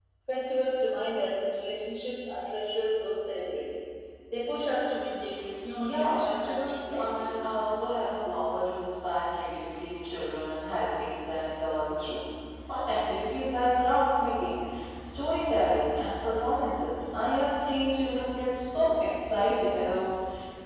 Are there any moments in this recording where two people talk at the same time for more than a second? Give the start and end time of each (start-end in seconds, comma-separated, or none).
5.8-7.6